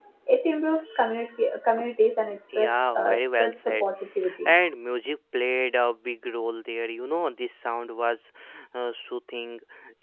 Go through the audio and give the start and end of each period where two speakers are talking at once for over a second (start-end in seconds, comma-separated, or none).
2.5-3.8